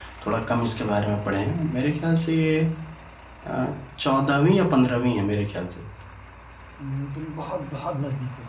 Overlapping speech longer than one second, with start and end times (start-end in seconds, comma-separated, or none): none